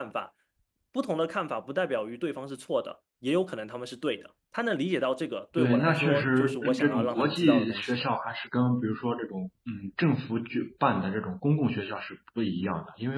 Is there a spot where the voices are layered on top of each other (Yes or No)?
Yes